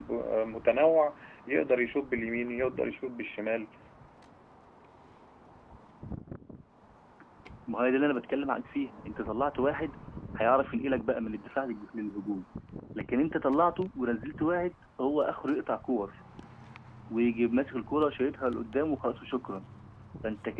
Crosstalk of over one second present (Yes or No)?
No